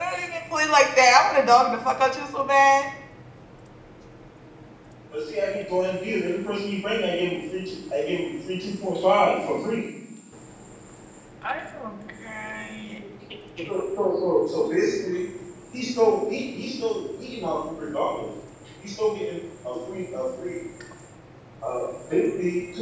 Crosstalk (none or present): none